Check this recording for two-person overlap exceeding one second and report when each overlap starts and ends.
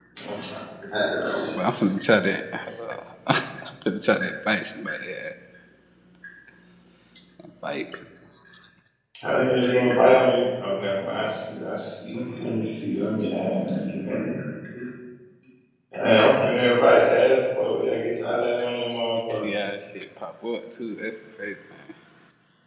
none

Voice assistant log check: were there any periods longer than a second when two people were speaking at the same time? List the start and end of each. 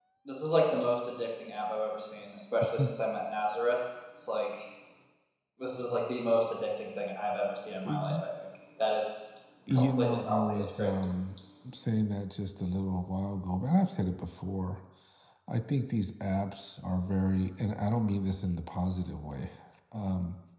9.7-11.1

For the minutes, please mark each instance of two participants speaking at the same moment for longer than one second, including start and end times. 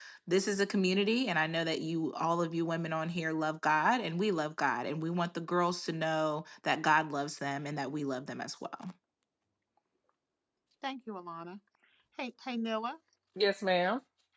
none

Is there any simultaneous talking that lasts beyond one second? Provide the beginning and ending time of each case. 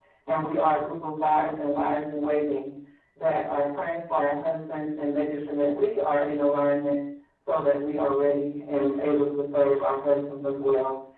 none

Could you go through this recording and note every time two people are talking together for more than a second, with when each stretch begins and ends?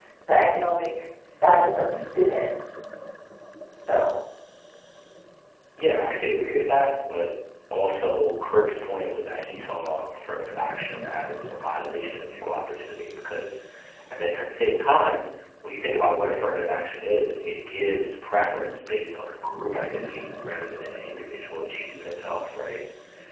none

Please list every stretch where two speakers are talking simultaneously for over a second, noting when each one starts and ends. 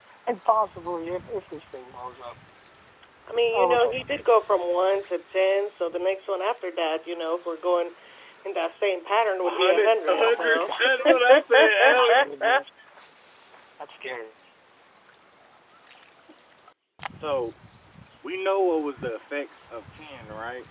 9.4-12.7

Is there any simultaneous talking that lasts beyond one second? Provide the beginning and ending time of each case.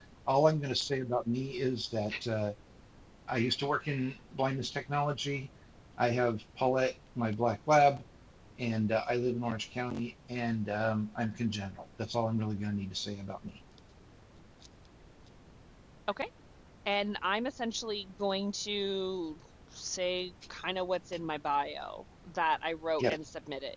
none

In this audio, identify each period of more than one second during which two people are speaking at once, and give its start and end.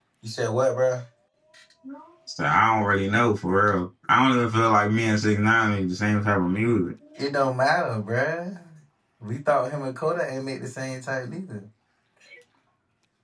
none

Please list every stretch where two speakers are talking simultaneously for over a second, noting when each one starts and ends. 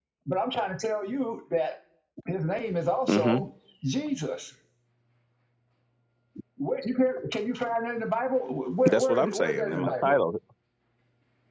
8.8-10.1

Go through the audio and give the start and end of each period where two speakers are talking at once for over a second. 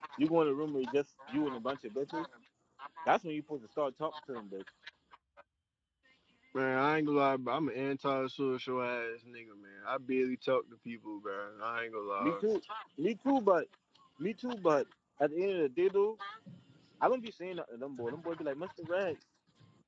none

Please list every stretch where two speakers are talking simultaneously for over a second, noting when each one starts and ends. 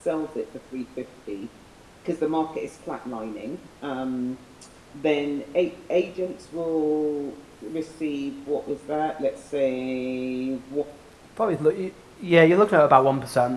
none

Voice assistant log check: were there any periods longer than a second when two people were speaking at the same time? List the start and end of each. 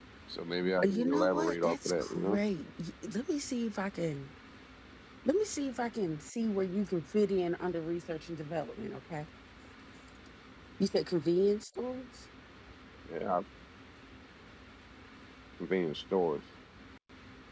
0.8-2.4

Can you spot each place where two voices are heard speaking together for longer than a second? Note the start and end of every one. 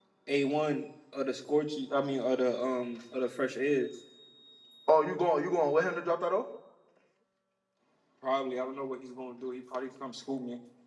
none

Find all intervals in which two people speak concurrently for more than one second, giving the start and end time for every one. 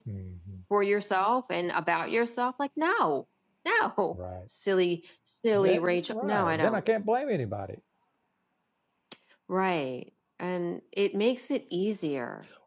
5.5-6.8

